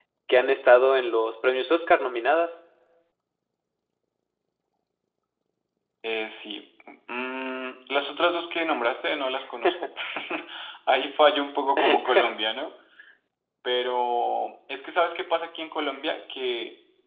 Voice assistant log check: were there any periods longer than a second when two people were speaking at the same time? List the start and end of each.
none

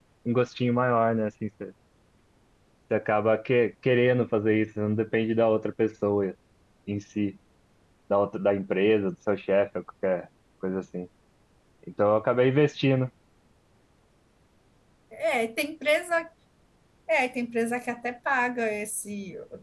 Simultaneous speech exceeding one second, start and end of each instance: none

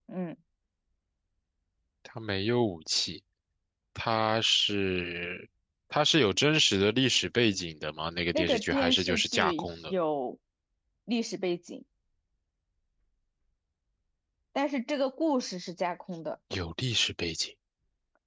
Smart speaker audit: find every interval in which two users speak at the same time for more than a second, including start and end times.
8.3-9.9

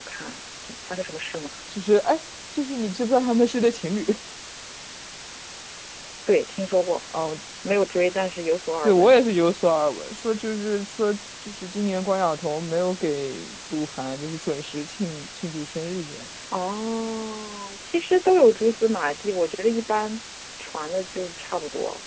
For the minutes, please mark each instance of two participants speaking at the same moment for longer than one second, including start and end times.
none

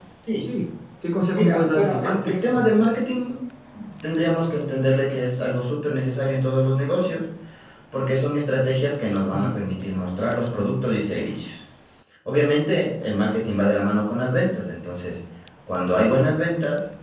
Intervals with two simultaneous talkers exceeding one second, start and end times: 1.3-2.7

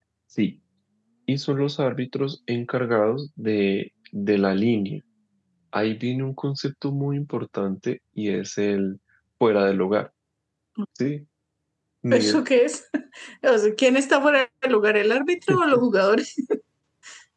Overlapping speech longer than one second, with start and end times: none

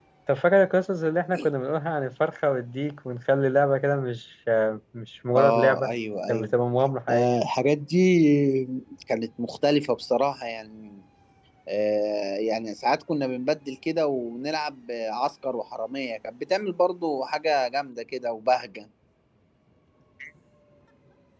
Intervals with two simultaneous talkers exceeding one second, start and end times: none

